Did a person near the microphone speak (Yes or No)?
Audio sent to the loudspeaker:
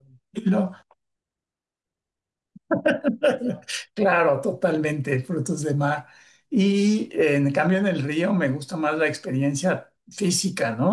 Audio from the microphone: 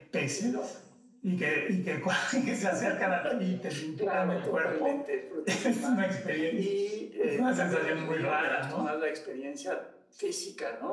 Yes